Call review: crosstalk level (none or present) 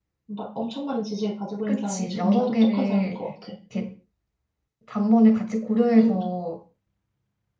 present